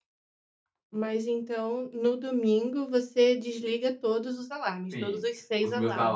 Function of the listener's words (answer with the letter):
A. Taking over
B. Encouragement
A